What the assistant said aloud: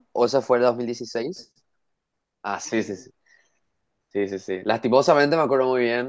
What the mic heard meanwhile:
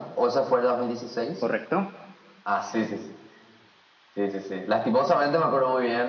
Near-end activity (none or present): present